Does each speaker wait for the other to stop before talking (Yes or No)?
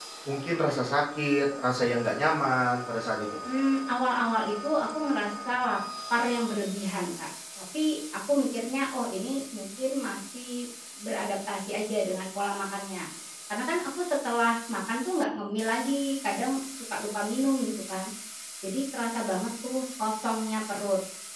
Yes